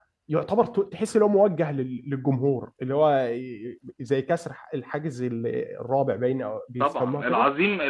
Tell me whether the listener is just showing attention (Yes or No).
No